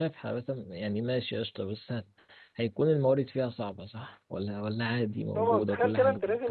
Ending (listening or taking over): taking over